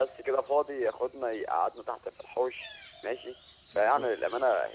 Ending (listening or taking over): listening